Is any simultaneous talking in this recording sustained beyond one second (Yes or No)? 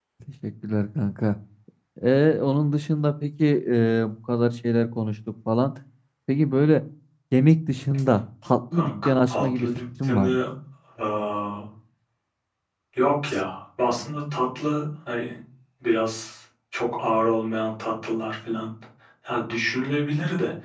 Yes